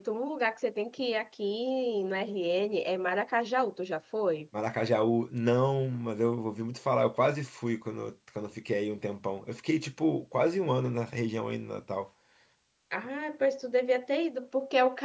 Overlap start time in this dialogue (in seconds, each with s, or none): none